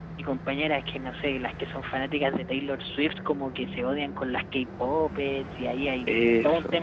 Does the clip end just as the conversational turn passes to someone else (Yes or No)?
No